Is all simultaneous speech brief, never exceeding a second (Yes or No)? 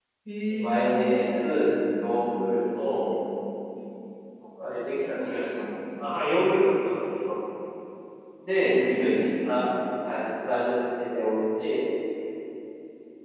No